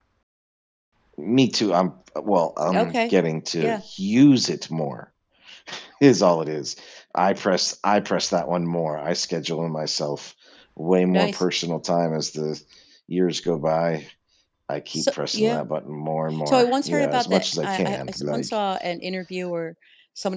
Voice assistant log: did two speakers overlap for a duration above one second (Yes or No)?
Yes